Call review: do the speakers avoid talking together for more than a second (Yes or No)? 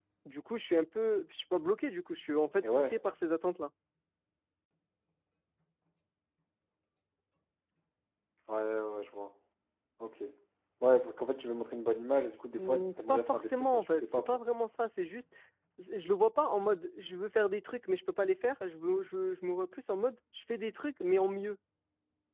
No